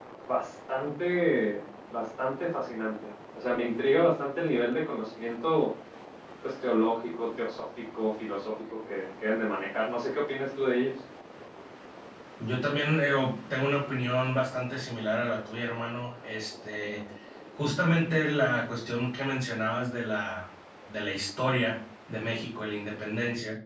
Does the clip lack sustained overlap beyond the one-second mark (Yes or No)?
Yes